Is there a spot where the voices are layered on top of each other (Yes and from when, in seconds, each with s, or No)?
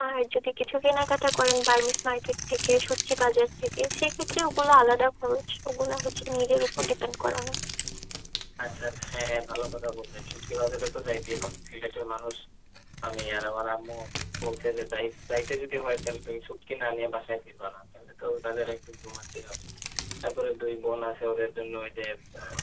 No